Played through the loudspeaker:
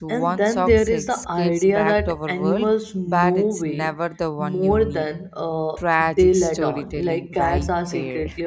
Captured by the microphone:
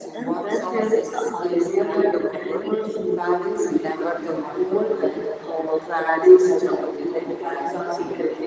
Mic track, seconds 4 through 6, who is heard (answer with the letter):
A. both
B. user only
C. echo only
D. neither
C